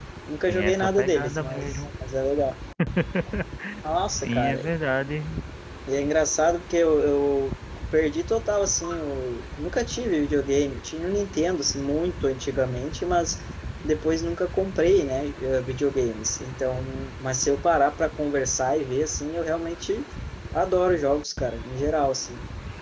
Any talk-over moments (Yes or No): Yes